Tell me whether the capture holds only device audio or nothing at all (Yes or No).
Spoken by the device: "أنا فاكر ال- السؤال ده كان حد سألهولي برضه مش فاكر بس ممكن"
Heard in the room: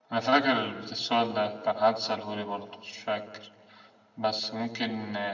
Yes